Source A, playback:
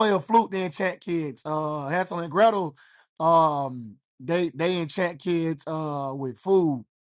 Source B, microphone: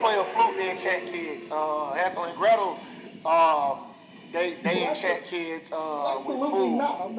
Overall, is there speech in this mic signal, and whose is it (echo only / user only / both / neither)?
both